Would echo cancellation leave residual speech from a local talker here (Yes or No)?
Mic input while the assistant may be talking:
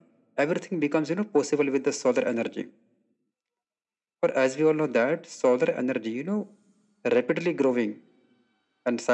No